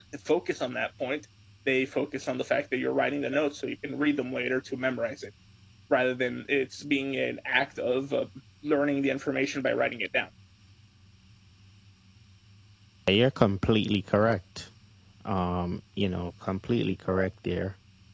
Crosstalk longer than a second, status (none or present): none